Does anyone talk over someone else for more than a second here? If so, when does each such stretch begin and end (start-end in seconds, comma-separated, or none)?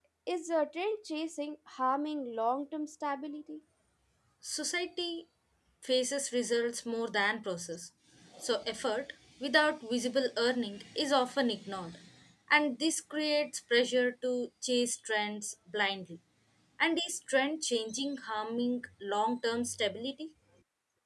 none